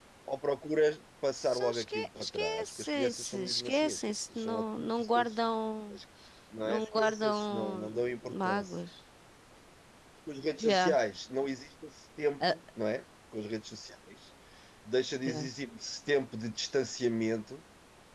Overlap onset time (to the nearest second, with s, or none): 1 s